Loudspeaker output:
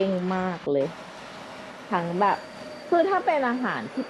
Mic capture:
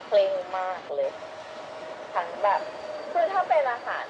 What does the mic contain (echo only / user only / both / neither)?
echo only